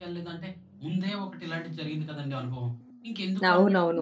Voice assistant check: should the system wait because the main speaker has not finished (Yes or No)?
No